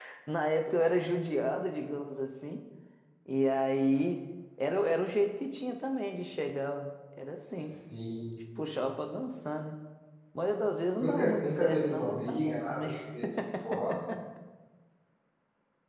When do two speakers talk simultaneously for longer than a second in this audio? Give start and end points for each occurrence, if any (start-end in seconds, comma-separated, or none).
10.9-12.9